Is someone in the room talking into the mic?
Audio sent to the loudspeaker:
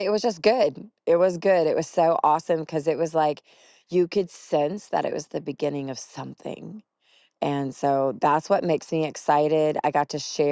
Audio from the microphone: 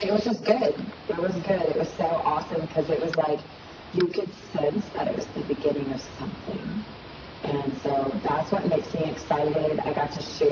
No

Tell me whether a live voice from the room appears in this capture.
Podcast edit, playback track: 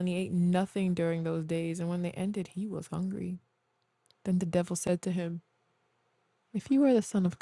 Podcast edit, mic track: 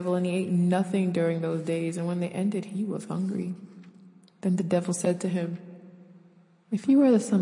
No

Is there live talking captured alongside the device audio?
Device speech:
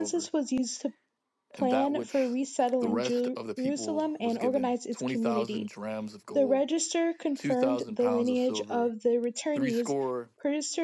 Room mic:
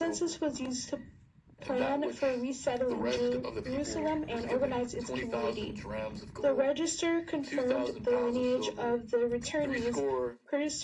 No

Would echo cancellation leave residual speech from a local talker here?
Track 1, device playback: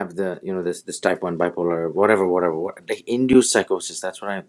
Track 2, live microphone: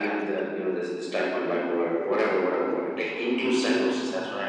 No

